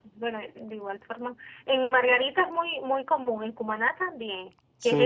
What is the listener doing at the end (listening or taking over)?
taking over